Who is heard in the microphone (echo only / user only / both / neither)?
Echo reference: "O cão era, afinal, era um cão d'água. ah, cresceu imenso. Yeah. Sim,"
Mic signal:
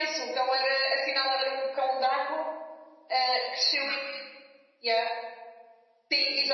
echo only